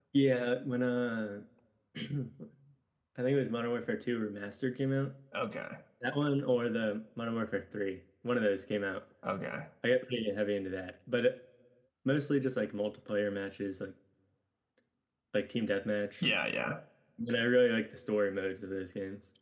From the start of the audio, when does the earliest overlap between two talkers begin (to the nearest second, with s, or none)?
none